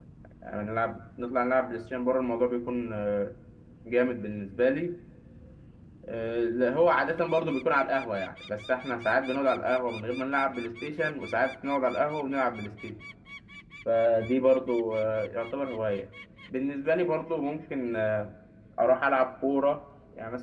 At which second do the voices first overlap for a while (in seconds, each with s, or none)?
none